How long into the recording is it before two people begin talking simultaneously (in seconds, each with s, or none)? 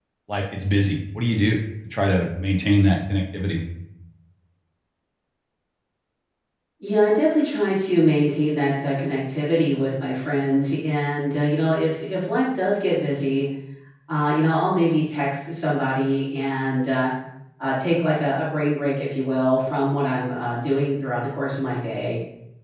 none